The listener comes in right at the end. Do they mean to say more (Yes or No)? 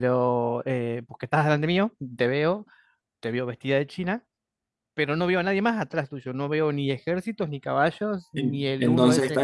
Yes